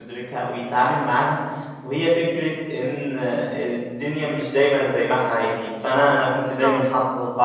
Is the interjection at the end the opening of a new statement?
No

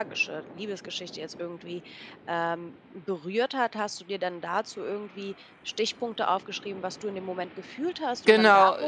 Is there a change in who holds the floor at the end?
Yes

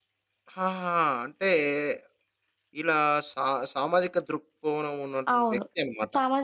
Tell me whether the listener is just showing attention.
No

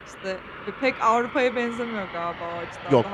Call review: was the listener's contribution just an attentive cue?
No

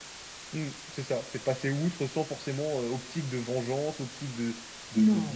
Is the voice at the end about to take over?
No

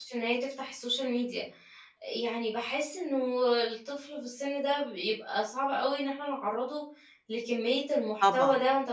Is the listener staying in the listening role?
Yes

